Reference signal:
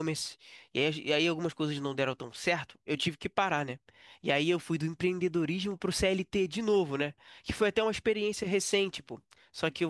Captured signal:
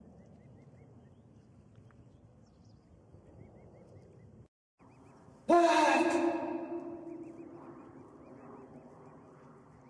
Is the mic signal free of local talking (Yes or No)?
No